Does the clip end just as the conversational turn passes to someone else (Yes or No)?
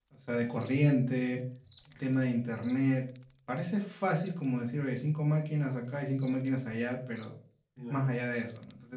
No